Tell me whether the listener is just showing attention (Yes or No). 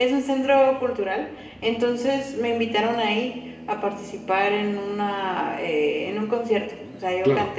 Yes